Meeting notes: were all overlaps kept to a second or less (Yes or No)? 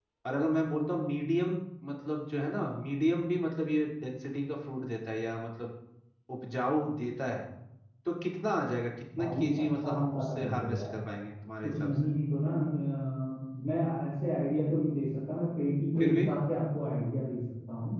No